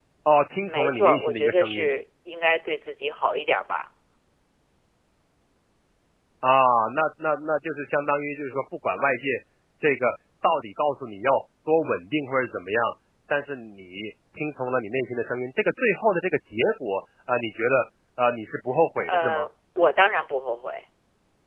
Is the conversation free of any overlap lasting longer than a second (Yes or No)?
No